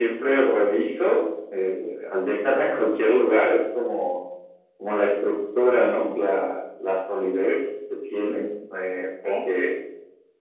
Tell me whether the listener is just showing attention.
Yes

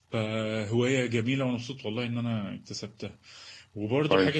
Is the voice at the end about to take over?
No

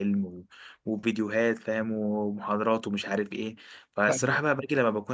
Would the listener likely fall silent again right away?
Yes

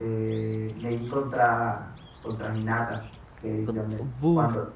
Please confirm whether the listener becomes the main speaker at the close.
No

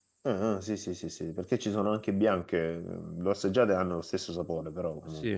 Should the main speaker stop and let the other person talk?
Yes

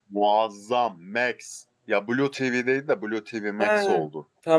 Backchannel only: No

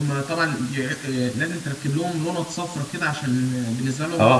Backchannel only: No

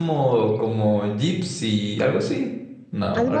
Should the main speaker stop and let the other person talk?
Yes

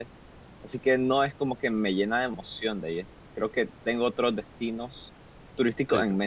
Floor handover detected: Yes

